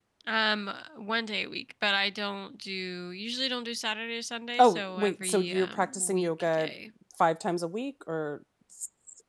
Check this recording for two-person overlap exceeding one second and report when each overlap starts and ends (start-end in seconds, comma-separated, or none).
4.6-6.7